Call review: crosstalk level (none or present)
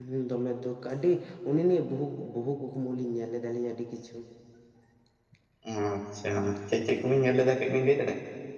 none